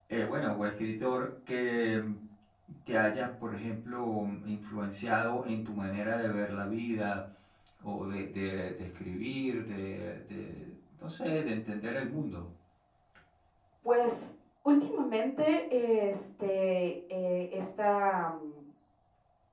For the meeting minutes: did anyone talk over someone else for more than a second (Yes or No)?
No